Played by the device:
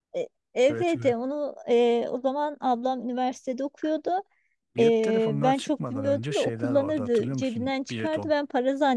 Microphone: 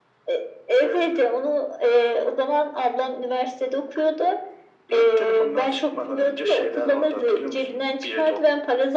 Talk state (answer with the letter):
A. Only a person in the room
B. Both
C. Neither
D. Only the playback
D